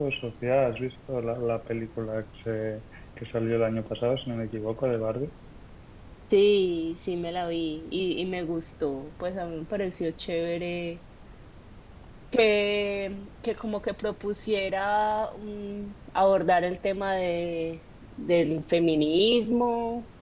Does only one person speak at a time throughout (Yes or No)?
Yes